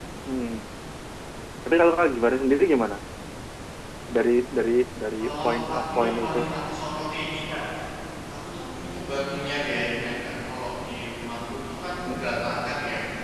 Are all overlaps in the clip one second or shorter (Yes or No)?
No